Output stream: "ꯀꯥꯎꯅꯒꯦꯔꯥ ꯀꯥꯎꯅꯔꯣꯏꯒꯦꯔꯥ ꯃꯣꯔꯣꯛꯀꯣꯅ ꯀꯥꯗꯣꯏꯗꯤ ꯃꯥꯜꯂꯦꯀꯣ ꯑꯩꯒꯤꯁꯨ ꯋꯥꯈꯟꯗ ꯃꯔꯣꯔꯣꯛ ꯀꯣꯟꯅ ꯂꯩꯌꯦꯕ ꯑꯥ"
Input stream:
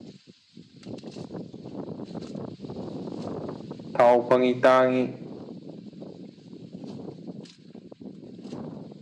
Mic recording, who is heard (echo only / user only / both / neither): user only